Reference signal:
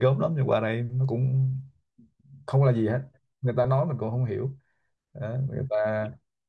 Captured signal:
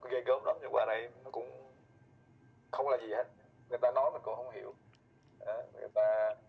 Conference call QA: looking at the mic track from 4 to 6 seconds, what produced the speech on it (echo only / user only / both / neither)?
echo only